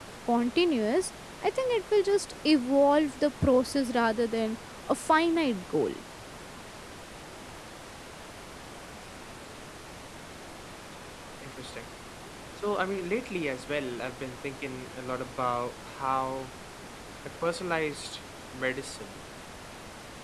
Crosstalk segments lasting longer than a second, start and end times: none

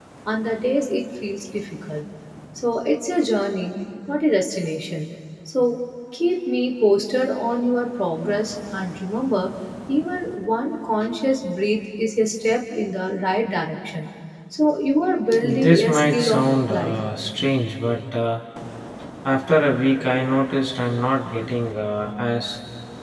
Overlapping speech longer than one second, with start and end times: 15.4-17.0

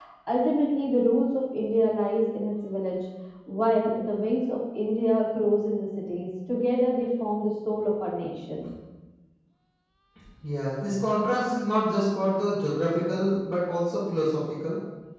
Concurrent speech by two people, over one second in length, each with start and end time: none

